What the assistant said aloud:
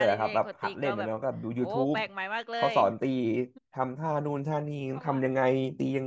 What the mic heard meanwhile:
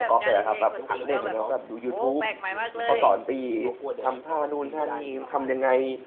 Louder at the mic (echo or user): echo